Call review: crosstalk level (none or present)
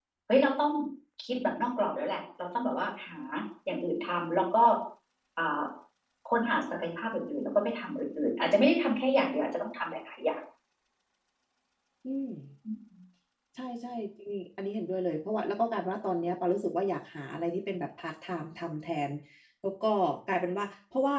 none